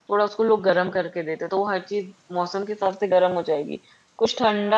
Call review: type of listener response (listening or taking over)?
listening